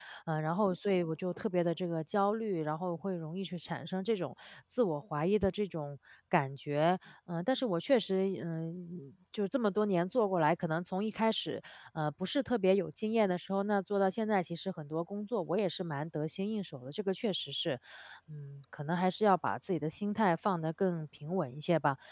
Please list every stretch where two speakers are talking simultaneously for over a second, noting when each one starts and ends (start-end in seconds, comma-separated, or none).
none